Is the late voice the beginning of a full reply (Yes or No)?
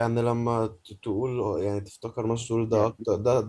No